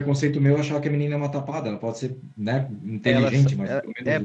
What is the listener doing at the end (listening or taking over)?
taking over